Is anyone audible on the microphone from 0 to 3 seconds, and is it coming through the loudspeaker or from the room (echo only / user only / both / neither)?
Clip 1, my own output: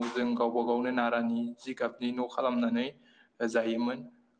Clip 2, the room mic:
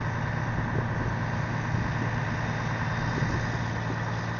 neither